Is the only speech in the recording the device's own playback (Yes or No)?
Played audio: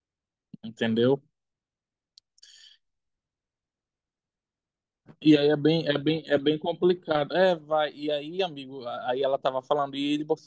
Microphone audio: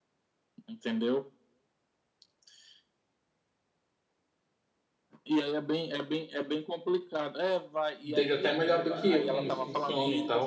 No